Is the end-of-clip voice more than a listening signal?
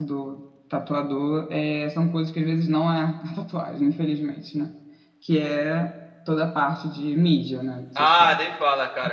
Yes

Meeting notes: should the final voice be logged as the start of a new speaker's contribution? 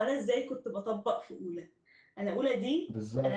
No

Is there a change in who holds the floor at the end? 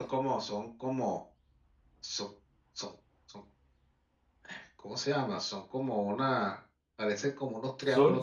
Yes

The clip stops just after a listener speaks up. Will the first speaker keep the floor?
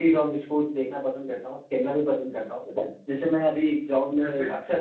Yes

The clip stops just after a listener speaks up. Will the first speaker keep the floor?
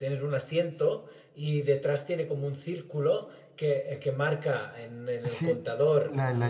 No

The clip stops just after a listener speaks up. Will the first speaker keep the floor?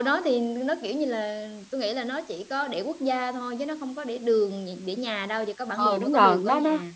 No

